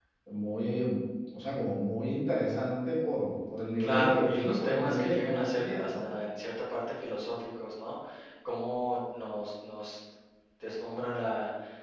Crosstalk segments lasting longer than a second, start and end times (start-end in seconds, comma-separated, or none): 3.8-6.0